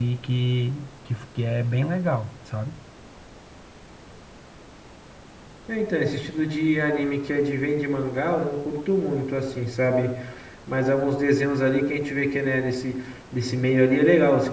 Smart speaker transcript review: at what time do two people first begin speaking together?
none

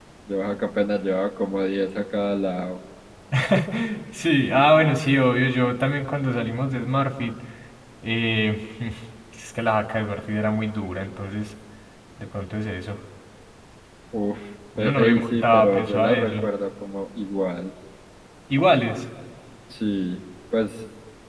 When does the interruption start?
15 s

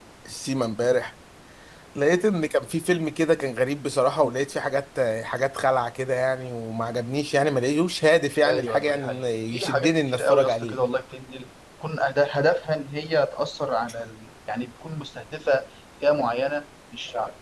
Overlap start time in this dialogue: 8 s

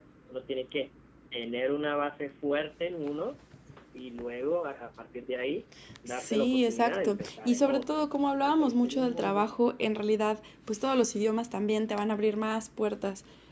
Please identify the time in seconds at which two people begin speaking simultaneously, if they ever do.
6 s

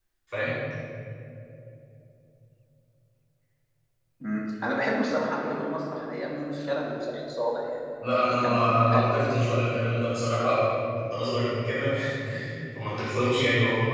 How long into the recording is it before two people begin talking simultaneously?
8 s

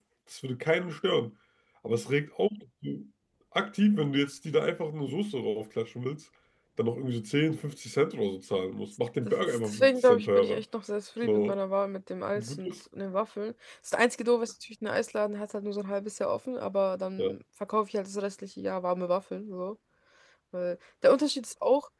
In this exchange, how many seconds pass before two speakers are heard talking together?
9 s

